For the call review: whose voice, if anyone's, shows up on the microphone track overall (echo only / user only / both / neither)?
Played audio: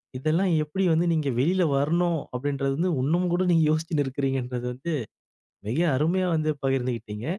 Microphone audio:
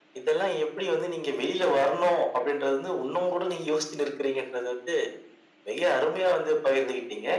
echo only